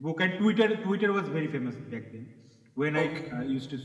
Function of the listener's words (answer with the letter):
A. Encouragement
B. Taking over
A